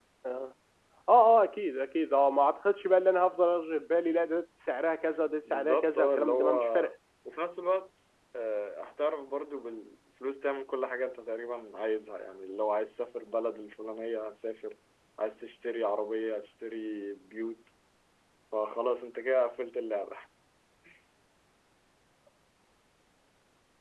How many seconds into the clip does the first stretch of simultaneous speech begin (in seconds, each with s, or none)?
5.5 s